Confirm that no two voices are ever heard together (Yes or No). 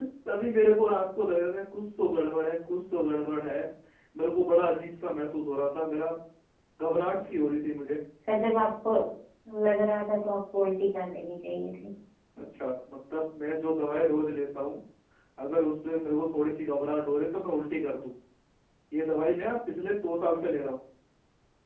Yes